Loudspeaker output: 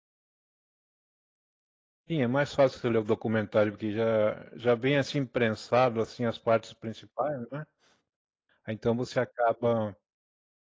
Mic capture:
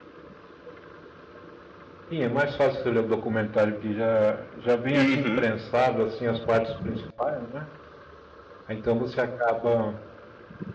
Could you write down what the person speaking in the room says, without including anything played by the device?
uhum,

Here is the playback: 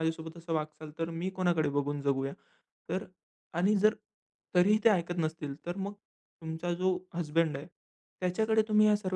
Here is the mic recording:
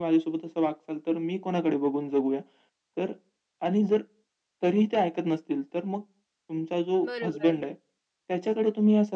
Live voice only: बरोबर.

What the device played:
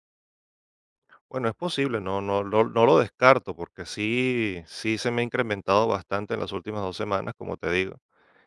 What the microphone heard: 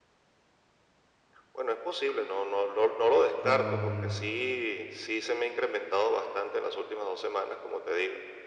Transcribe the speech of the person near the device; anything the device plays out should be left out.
Am,

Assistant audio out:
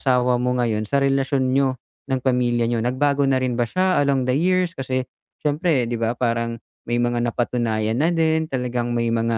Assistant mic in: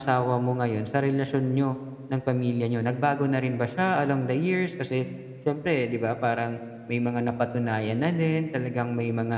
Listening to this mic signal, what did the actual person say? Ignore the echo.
none

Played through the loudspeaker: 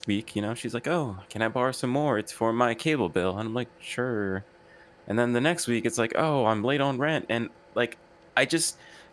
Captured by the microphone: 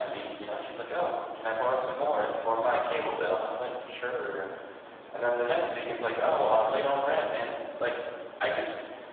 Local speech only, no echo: none

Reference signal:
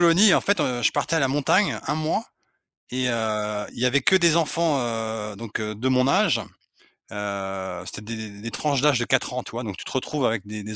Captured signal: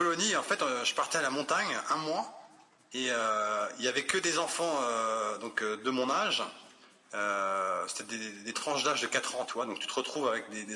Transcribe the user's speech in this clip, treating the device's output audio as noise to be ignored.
none

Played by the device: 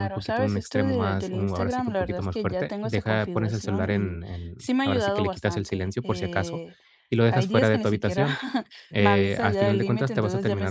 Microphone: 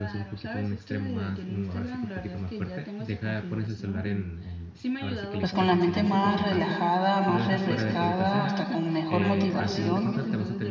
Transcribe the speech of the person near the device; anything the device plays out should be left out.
pues con la mente más relajada, más refrescada, hasta con mejor motivación,

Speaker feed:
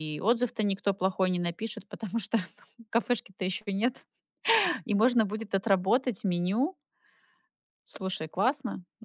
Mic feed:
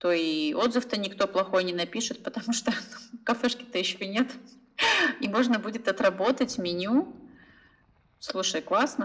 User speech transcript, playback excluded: none

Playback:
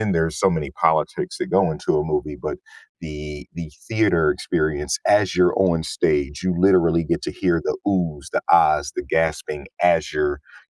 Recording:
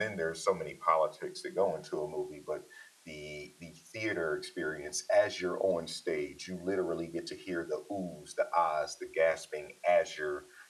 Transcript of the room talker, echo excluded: none

